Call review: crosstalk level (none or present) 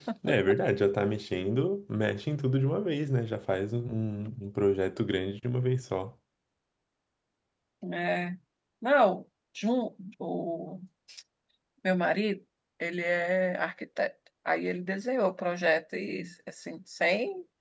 none